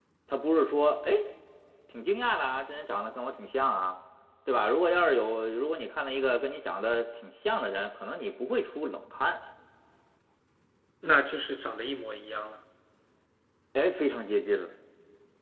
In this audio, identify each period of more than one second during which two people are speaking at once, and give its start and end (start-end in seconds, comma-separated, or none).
none